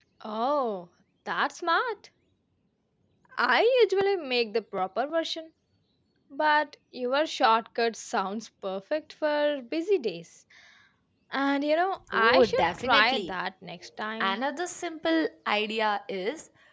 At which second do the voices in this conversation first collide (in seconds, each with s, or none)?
12.1 s